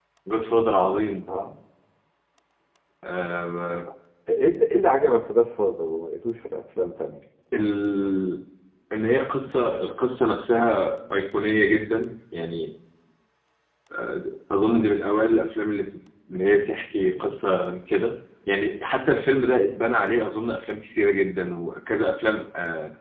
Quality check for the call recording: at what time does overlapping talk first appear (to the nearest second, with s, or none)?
none